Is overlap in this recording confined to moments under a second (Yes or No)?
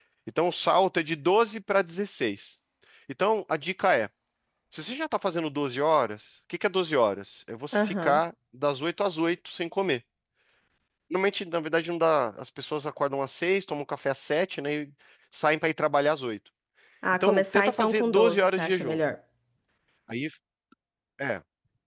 No